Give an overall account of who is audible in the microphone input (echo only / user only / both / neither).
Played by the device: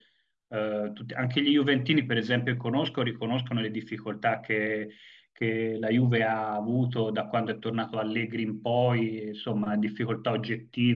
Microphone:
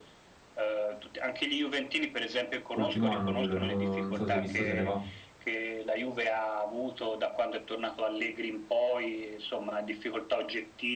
both